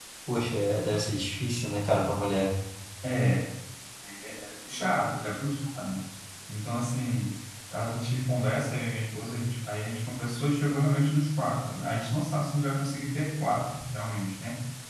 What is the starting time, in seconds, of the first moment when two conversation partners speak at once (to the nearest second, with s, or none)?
none